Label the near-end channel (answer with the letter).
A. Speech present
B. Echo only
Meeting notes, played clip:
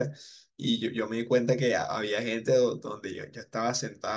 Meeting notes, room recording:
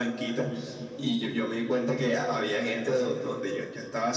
B